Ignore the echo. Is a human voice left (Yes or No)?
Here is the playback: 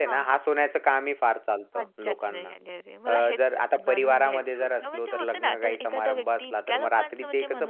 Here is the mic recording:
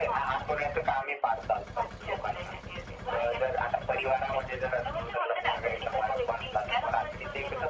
No